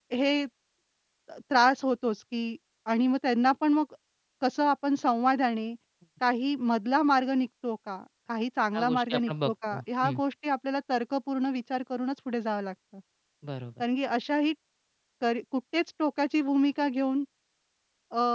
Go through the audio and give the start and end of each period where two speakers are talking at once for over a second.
8.8-10.2

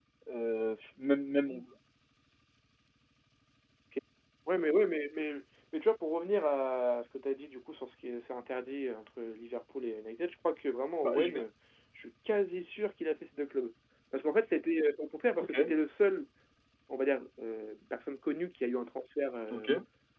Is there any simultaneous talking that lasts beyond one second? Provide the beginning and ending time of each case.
none

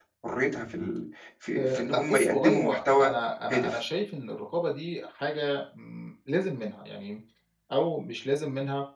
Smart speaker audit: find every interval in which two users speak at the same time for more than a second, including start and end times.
1.6-3.1

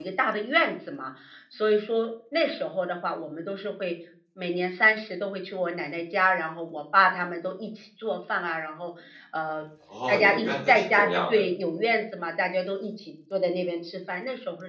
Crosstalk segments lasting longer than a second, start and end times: 10.1-11.4

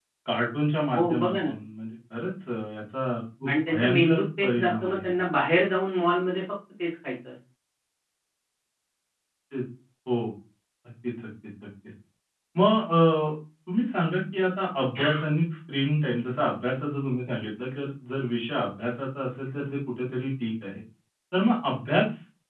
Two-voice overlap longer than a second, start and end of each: 3.5-5.2

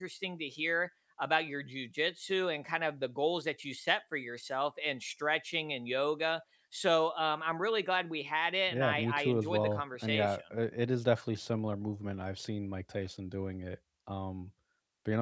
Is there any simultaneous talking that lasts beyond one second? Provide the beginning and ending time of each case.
8.7-10.6

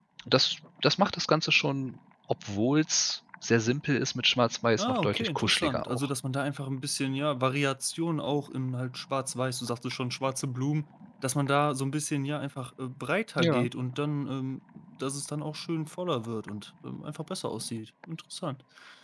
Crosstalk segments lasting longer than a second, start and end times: 4.8-6.1

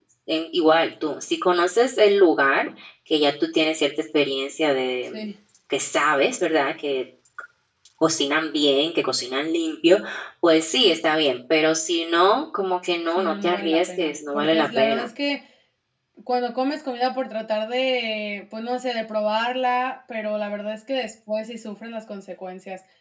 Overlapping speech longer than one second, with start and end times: 13.1-15.1

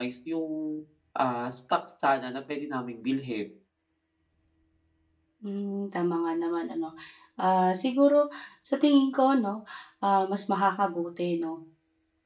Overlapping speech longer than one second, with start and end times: none

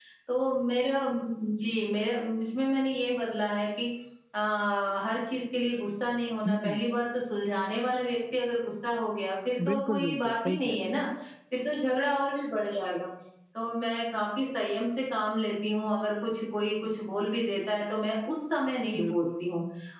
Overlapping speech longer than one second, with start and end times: 9.7-11.0

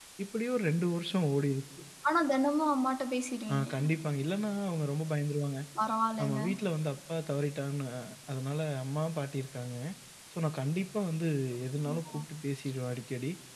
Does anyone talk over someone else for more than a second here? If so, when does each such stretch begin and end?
none

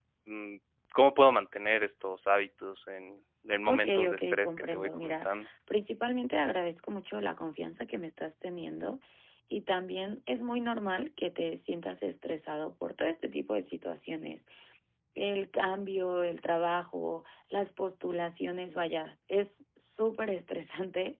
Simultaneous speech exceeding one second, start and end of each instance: 3.7-5.3

